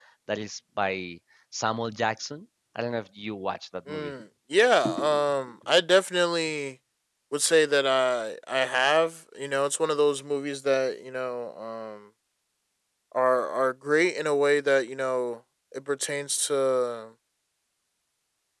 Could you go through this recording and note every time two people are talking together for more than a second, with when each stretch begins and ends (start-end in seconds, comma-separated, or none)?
none